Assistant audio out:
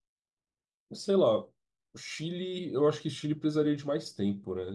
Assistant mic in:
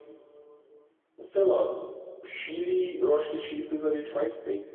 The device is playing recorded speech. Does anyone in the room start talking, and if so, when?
none

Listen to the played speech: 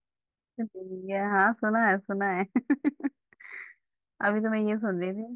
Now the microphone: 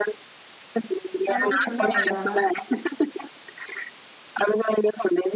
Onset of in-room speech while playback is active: 1.3 s

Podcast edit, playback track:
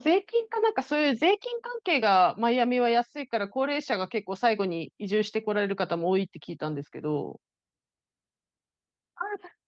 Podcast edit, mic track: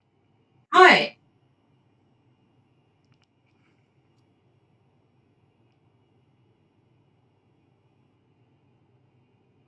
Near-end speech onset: 0.7 s

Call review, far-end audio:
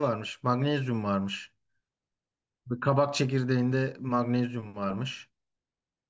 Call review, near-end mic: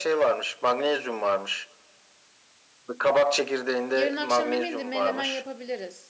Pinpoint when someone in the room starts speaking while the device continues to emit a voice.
3.9 s

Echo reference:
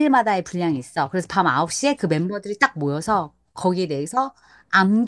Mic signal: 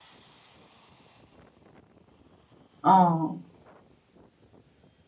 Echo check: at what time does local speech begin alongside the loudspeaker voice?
2.8 s

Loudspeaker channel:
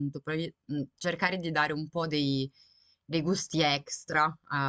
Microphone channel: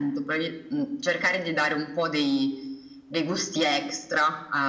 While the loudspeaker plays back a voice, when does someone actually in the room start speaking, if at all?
none

